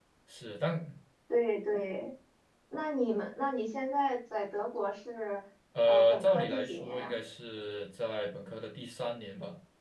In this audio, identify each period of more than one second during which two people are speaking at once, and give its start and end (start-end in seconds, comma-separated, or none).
5.9-7.2